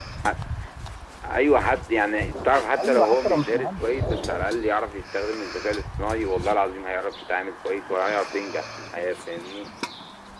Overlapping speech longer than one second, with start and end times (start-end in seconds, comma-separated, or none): 2.8-4.4